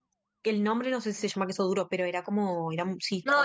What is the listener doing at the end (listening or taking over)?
taking over